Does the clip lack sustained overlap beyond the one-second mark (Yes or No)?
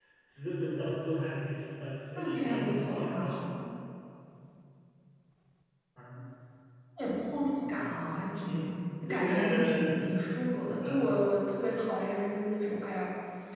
No